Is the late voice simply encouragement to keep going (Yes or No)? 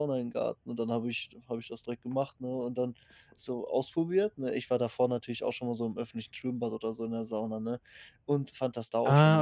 Yes